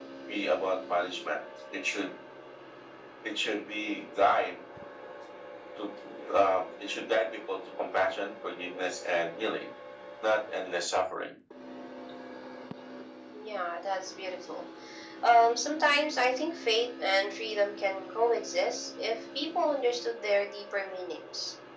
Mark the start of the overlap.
none

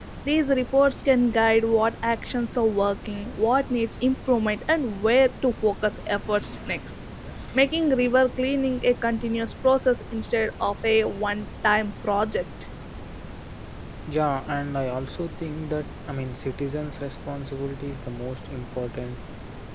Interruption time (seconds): none

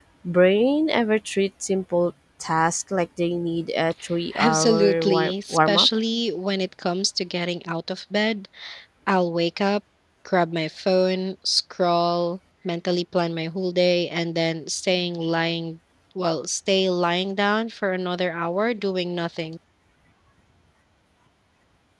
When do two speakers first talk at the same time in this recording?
4.3 s

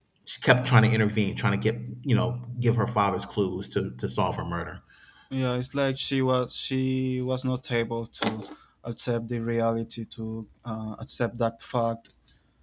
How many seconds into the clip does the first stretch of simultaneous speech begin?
none

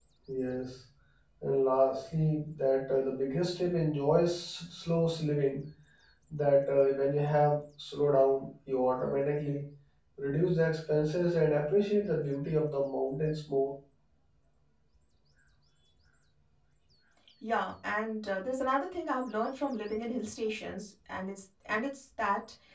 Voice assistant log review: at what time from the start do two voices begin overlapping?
none

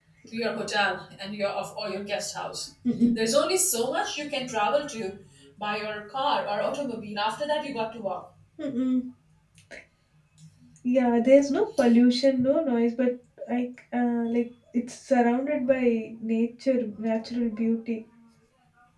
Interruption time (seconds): none

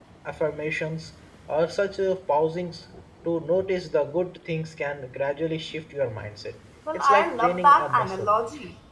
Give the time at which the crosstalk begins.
6.9 s

